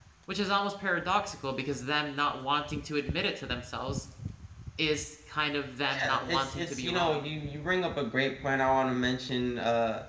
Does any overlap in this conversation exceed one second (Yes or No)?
Yes